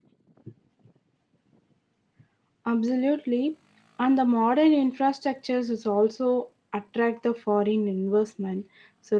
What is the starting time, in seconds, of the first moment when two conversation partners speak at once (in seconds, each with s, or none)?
none